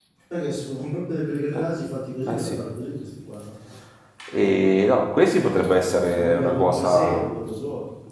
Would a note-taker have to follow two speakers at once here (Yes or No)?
Yes